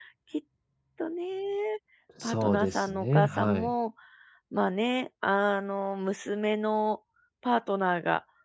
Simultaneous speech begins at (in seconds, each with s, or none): 2.2 s